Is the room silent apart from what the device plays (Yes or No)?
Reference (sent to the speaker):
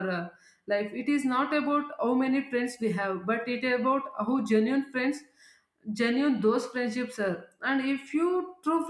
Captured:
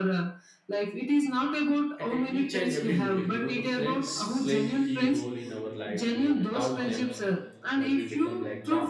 No